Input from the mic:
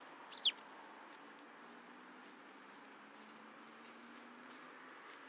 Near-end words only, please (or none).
none